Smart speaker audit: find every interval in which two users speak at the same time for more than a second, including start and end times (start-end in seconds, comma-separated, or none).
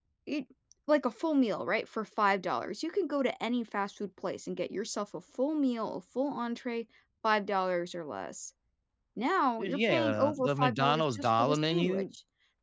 9.6-12.0